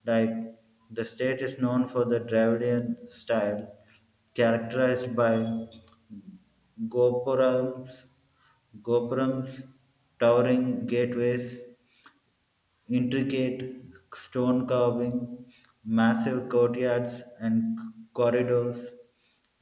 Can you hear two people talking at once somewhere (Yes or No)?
No